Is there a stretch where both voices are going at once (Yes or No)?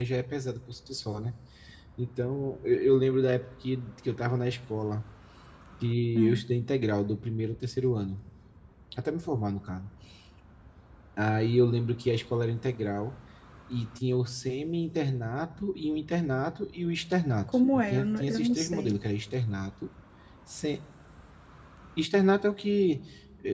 Yes